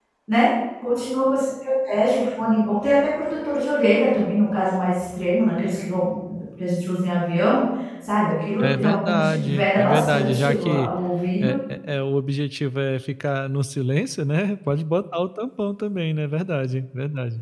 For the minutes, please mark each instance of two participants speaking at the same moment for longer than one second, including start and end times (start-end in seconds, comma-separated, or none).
8.6-10.9